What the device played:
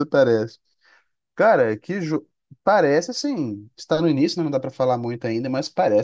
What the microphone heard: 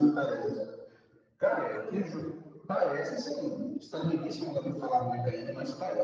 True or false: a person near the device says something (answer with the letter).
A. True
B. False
B